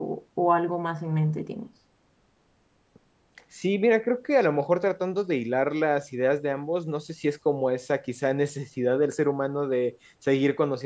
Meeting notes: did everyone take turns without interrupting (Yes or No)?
Yes